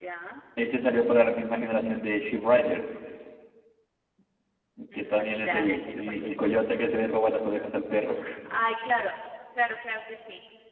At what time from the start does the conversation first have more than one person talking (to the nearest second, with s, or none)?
5 s